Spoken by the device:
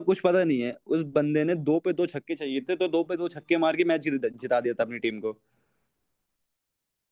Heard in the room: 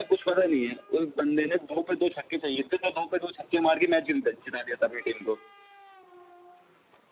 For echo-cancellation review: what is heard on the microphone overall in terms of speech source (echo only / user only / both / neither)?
echo only